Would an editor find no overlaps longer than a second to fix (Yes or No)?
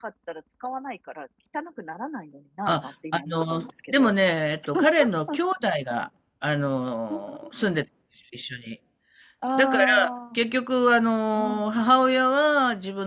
No